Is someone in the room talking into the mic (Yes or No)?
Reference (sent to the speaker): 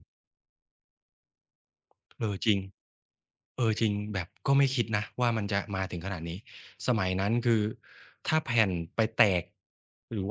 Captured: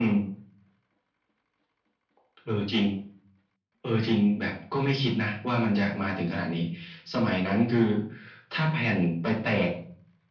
No